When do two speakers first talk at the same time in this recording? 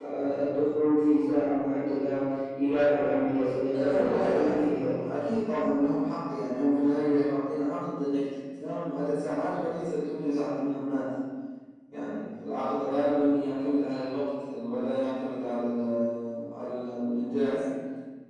3.7 s

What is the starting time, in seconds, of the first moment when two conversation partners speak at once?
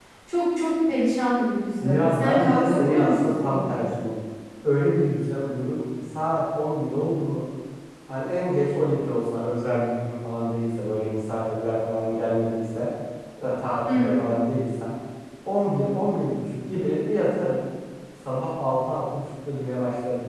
1.8 s

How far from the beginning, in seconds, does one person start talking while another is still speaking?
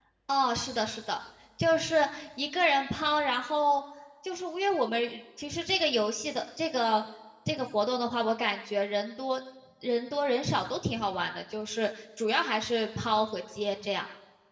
none

